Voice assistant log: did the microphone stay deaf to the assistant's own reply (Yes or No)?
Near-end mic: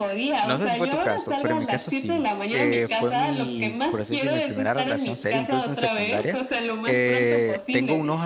No